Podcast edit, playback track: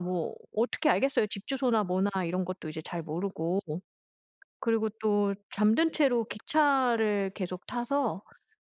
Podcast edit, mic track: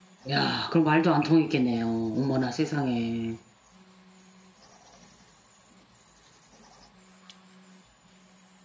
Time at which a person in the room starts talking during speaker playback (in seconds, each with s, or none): 0.3 s